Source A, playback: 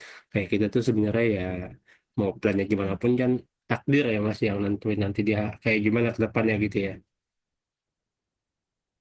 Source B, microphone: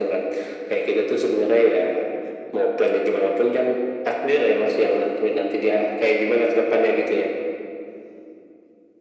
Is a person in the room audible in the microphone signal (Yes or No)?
No